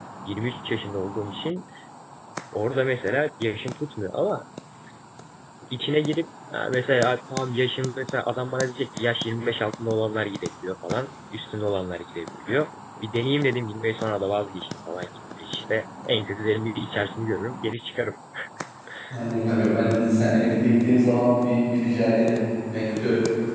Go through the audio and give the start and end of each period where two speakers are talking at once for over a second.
none

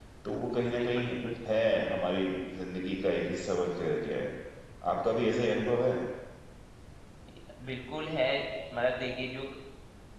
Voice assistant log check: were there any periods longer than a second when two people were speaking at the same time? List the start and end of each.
none

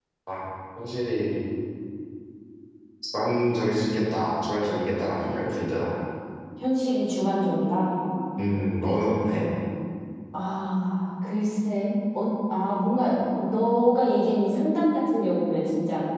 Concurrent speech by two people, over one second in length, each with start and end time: none

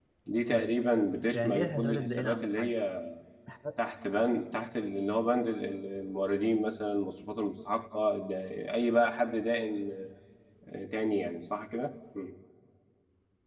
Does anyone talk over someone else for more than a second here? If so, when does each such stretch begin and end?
1.3-2.7

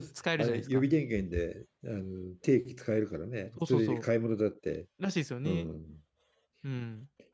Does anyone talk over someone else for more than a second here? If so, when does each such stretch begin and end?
none

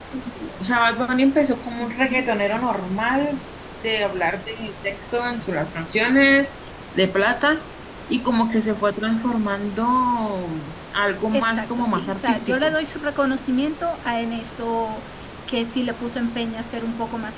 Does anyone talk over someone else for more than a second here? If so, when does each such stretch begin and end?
11.3-12.8

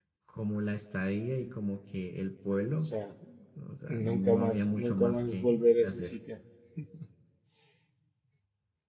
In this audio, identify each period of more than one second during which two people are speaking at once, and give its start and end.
3.9-6.2

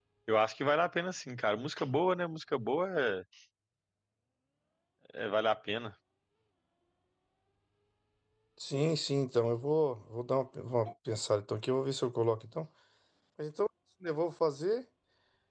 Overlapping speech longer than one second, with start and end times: none

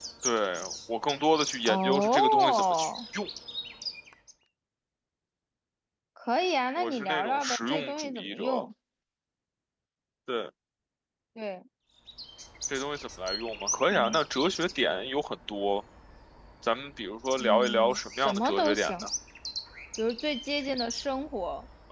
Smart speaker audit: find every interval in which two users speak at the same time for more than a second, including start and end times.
1.6-2.9, 6.8-8.7, 17.4-19.1

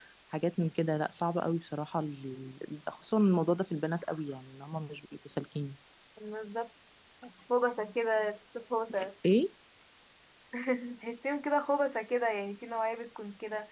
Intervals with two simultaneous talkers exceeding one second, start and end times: none

